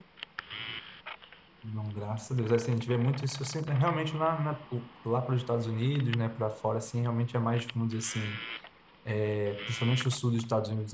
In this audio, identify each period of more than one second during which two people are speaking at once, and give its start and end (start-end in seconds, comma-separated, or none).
none